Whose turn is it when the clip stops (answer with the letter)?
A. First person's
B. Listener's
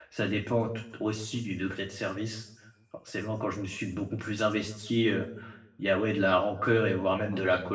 A